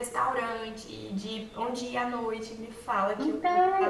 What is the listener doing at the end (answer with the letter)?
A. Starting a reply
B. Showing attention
A